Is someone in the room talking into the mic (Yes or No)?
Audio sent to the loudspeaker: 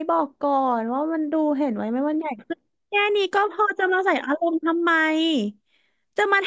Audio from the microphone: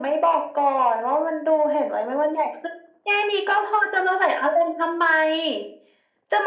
No